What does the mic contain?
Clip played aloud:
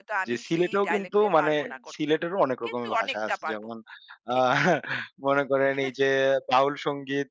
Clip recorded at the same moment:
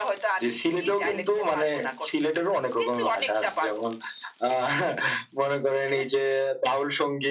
echo only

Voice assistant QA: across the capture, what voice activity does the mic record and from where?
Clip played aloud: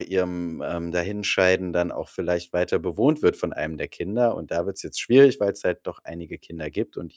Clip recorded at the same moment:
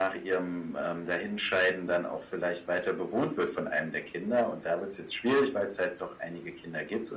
echo only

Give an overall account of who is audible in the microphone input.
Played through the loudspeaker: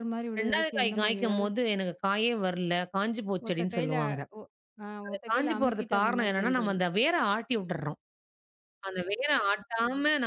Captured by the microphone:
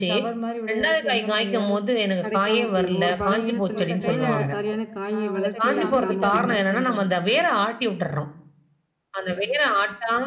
both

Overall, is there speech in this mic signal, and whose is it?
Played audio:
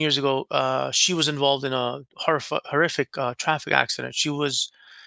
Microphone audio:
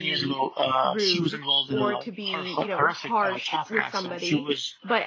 both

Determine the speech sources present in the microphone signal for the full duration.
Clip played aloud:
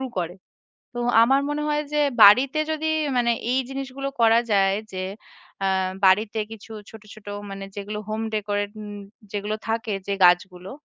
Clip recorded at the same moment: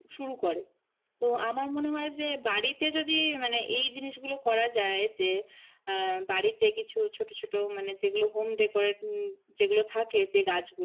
echo only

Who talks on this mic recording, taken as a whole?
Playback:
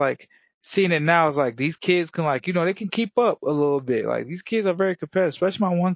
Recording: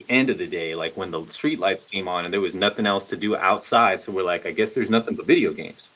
user only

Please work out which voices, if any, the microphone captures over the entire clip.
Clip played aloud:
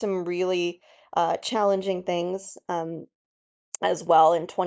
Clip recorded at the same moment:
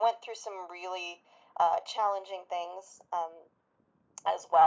echo only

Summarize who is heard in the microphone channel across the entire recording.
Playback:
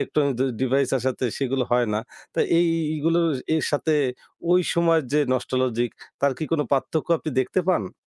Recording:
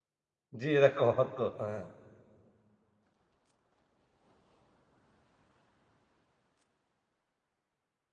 user only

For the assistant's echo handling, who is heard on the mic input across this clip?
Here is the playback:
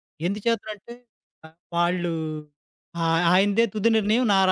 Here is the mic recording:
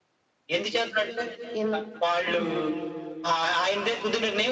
both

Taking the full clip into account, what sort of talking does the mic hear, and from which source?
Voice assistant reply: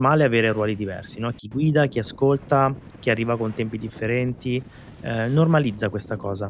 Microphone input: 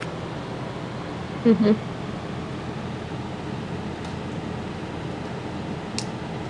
user only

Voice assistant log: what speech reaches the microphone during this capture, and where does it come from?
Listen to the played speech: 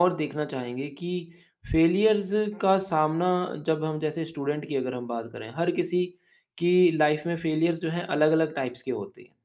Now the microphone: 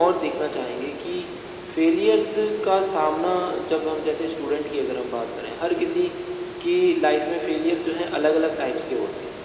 echo only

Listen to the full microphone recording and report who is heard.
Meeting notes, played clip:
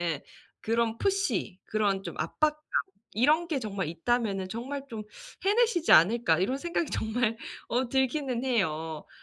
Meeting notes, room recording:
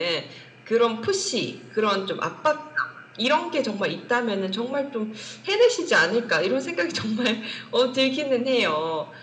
echo only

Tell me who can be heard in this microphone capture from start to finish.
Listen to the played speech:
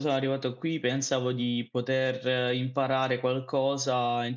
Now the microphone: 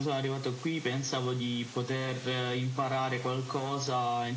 echo only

